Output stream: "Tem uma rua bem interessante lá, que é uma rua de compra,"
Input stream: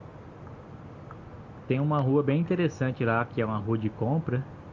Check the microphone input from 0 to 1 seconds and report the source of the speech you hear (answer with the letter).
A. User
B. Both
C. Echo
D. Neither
D